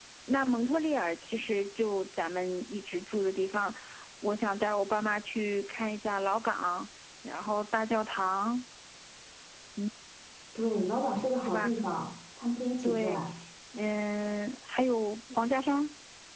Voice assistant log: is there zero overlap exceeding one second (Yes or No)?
Yes